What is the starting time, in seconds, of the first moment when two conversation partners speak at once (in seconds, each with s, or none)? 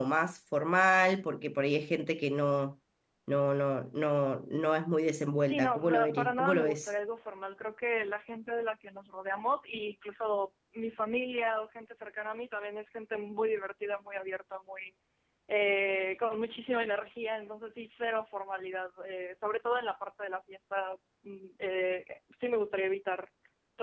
5.5 s